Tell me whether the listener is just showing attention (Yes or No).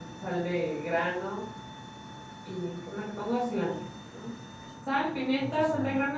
Yes